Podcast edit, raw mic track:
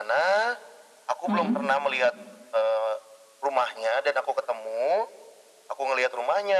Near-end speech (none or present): present